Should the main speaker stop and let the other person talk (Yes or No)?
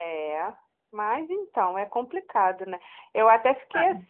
No